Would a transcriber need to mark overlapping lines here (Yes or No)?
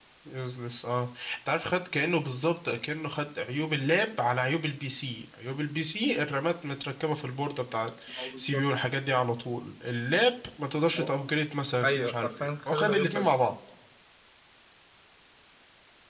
Yes